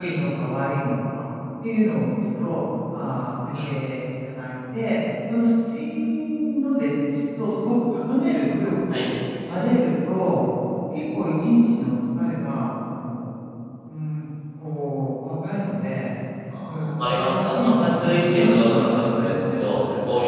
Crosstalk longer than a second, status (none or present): present